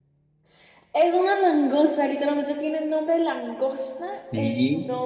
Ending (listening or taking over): taking over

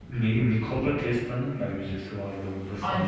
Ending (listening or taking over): taking over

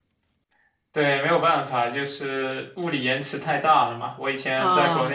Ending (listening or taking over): listening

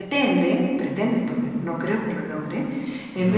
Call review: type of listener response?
listening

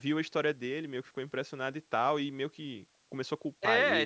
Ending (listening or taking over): taking over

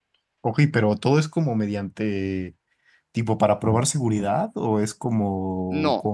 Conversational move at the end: taking over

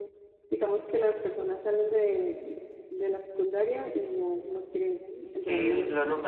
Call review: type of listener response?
taking over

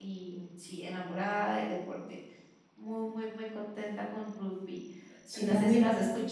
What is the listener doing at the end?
taking over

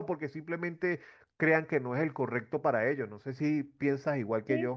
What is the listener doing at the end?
taking over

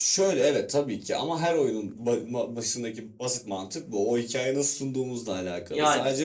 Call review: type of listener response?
listening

